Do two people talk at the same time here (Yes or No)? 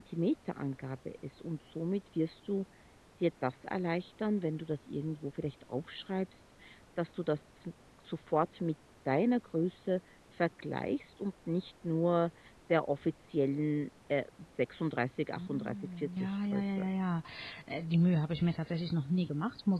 Yes